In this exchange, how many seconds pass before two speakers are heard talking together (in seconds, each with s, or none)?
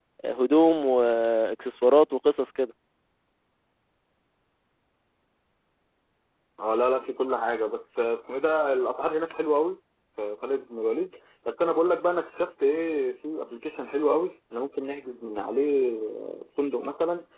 none